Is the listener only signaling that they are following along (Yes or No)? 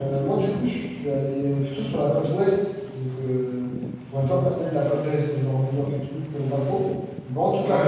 Yes